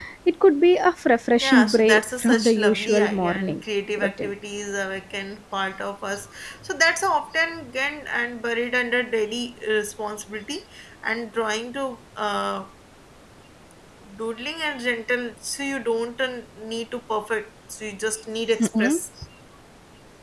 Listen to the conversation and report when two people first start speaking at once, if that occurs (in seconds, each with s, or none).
1.4 s